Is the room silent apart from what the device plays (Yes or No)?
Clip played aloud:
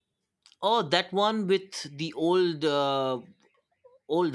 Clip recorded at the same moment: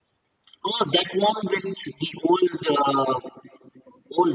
Yes